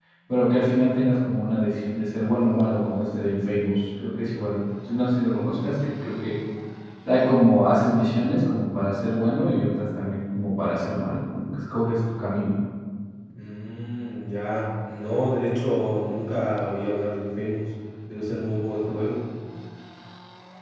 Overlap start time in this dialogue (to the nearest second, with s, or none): none